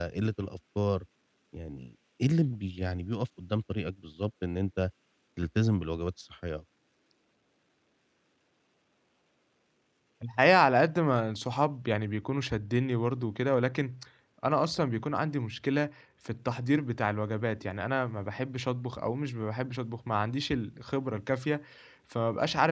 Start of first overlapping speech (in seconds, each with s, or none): none